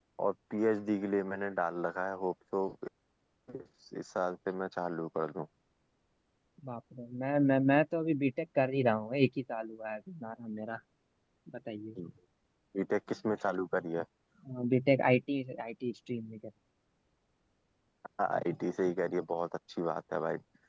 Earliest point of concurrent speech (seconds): none

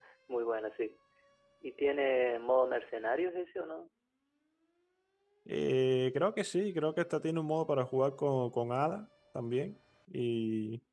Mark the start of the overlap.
none

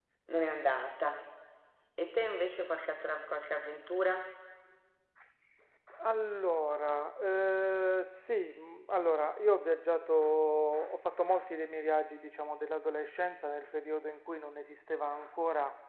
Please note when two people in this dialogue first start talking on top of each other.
none

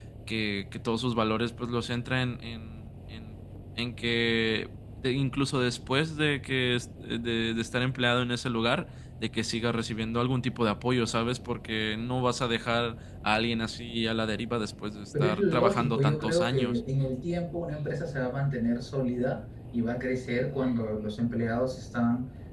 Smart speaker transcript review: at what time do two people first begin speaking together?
15 s

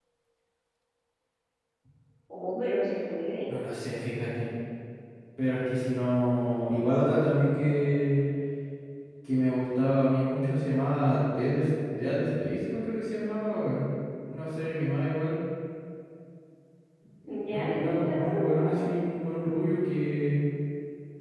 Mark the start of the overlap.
18 s

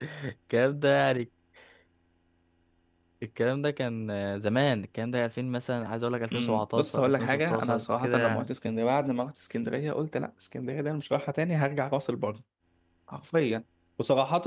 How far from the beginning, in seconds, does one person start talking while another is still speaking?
6 s

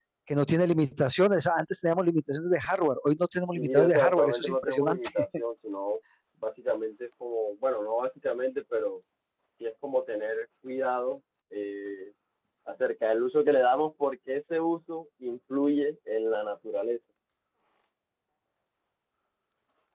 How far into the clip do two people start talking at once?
4 s

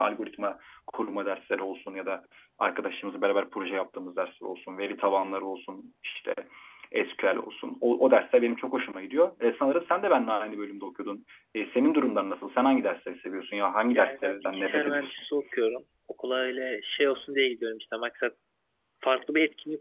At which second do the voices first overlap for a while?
14 s

